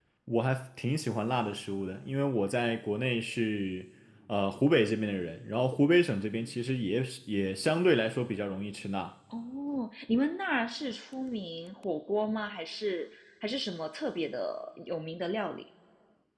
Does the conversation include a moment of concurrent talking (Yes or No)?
No